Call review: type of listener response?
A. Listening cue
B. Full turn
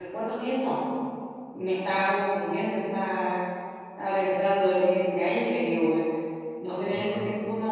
A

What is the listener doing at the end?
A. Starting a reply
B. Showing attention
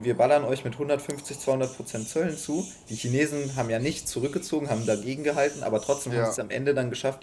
B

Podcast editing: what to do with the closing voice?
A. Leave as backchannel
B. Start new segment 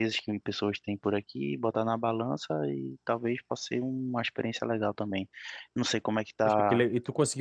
B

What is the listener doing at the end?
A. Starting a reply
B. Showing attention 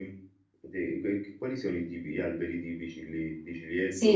A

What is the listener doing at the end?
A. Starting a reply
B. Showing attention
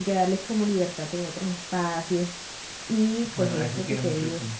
A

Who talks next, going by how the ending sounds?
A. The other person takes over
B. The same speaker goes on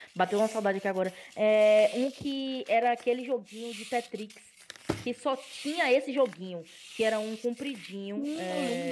A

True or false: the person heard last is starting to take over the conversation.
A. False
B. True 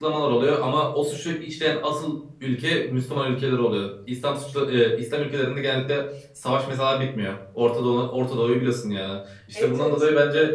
A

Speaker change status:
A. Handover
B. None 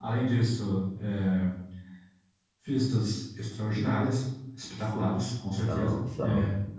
B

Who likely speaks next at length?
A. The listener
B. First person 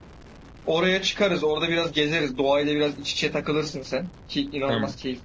B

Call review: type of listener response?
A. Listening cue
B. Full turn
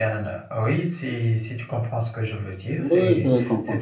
B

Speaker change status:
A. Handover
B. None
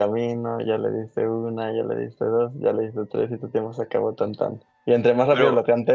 B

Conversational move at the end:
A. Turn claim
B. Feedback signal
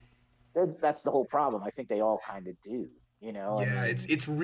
A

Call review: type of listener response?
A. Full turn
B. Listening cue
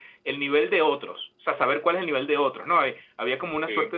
B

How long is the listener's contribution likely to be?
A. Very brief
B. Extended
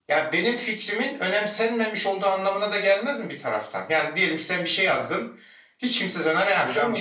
B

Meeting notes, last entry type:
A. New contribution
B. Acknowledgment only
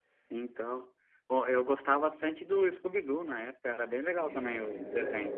A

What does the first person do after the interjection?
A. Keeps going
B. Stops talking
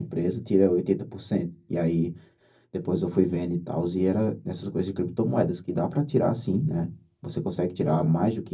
A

